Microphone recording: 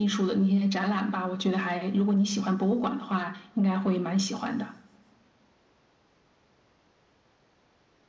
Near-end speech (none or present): none